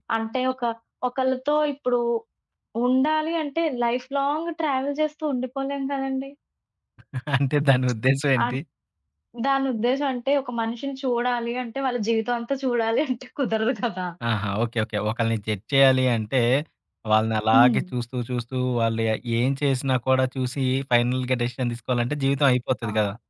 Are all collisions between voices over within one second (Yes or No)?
Yes